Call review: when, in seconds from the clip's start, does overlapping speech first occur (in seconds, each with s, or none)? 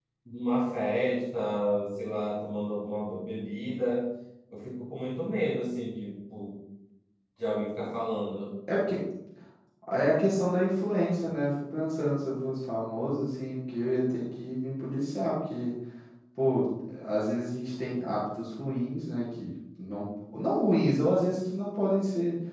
none